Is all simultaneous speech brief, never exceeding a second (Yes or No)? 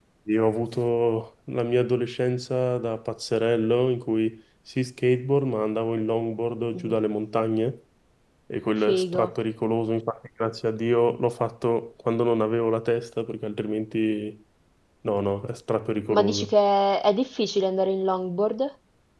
Yes